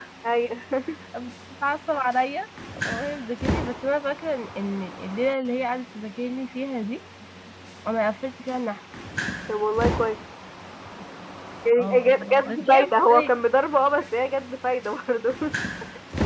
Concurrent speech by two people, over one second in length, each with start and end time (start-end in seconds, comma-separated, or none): 11.8-13.4